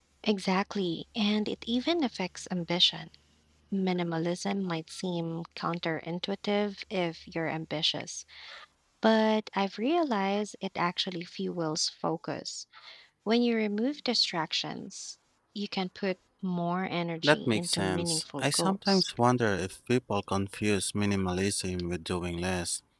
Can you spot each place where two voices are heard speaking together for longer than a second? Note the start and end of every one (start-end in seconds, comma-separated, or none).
17.2-19.0